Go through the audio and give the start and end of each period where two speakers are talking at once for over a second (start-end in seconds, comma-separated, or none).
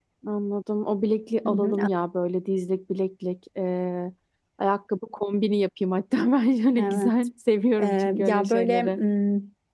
7.8-9.0